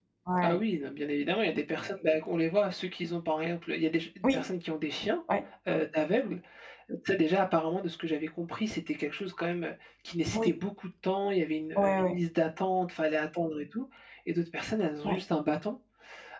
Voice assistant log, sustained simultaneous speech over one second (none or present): none